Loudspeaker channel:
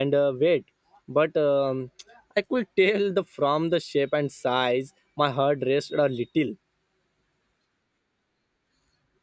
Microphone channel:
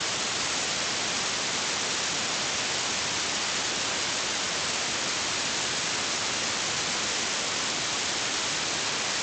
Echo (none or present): none